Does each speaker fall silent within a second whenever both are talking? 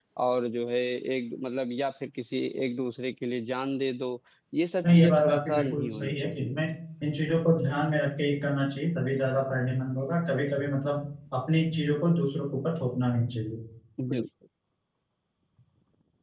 No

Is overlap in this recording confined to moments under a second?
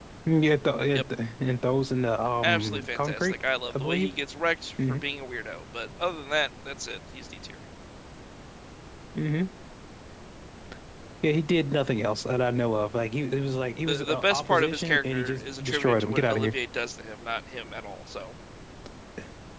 No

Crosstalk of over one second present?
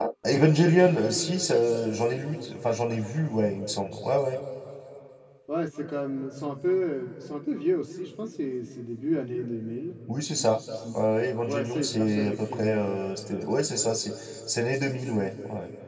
Yes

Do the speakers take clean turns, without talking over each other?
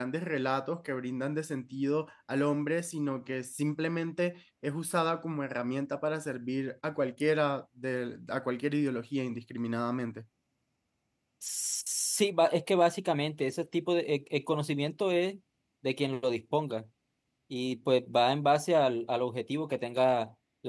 Yes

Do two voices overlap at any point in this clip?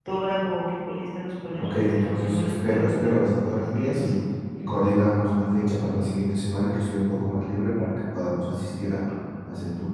Yes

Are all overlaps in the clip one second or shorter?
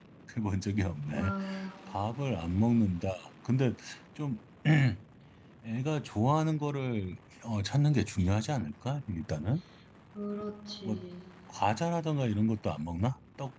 Yes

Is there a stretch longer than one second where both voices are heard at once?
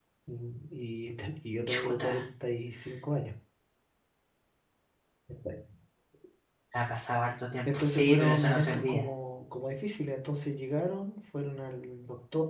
Yes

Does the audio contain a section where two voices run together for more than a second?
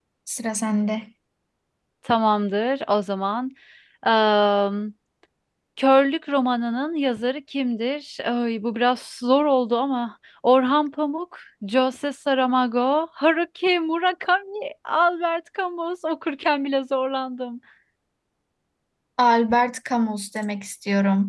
No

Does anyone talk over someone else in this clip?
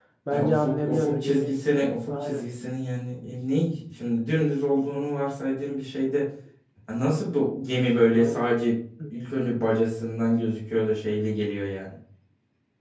Yes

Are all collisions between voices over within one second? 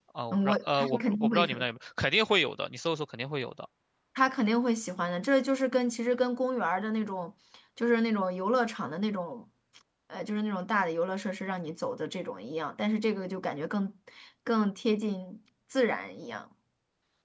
No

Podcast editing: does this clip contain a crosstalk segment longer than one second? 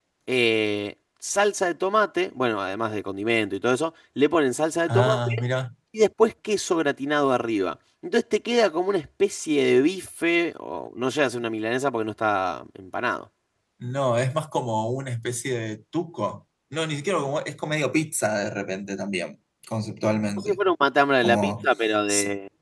No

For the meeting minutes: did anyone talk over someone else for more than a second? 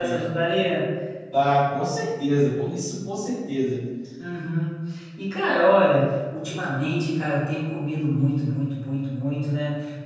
No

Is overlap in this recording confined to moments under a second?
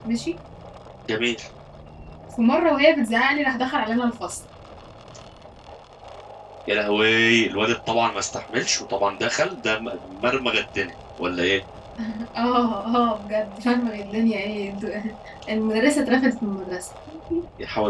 Yes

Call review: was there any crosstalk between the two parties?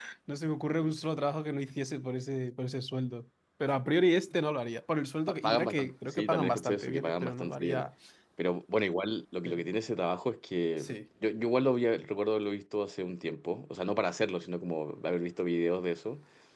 Yes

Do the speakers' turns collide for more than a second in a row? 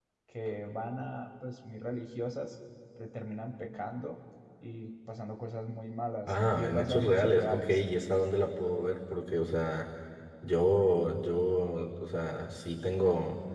Yes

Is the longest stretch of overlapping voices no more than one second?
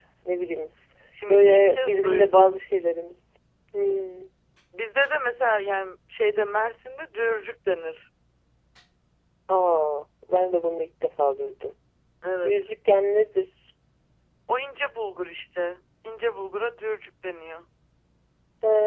No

